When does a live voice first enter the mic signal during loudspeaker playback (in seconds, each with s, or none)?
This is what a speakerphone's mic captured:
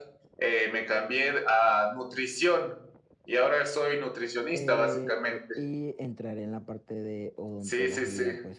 4.5 s